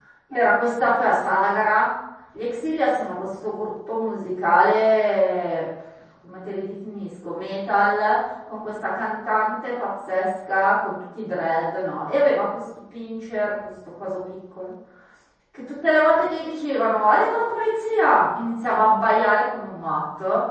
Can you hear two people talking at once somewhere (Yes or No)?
No